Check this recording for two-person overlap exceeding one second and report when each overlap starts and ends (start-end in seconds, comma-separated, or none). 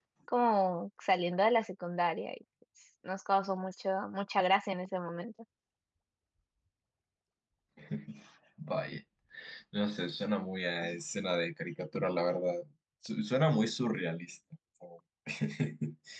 none